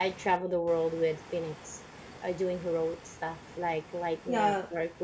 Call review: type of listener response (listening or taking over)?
listening